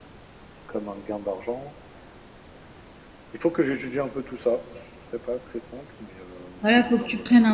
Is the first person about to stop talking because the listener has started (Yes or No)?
Yes